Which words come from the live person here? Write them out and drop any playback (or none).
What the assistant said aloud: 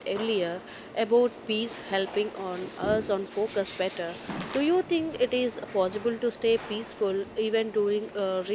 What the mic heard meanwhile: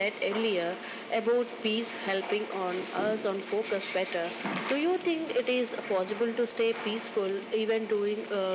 none